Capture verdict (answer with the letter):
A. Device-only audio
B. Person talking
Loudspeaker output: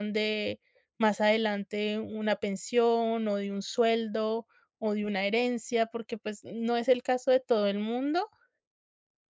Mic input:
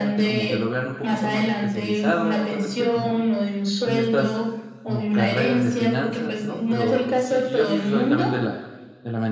B